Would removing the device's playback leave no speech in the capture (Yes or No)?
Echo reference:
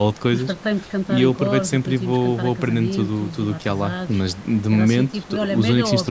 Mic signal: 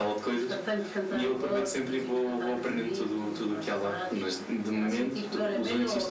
Yes